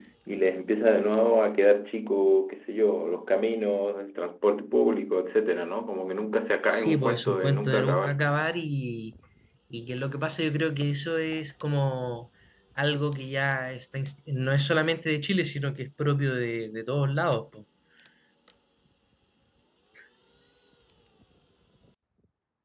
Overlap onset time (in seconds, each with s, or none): 6.7 s